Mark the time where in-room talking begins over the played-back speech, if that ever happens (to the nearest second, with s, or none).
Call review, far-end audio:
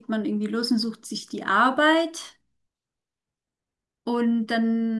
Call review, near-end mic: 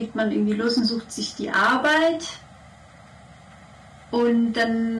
none